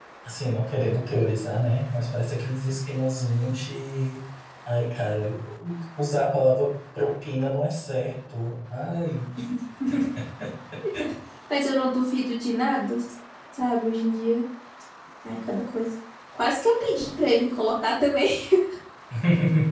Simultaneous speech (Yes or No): No